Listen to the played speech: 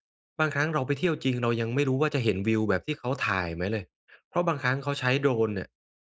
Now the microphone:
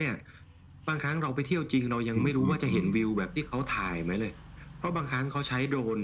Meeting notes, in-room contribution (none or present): present